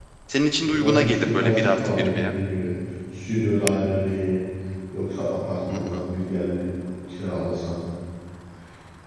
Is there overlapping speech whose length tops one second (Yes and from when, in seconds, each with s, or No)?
Yes, from 0.6 s